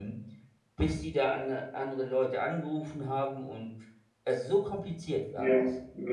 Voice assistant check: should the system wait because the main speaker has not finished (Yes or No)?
No